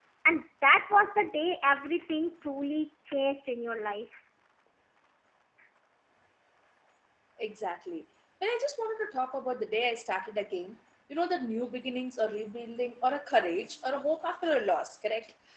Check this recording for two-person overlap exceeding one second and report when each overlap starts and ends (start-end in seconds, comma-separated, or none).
none